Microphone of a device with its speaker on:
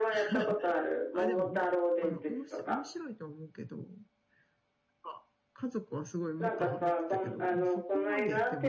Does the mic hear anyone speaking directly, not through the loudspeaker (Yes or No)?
Yes